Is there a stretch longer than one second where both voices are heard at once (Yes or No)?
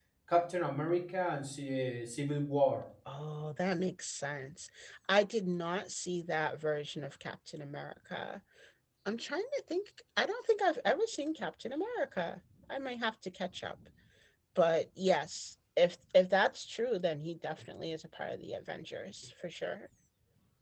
No